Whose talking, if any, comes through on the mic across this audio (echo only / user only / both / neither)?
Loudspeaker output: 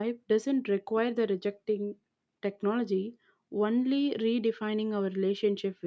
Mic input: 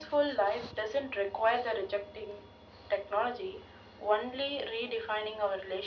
echo only